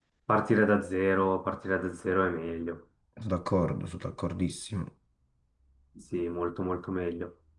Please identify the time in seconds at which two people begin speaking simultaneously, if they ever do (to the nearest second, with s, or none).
none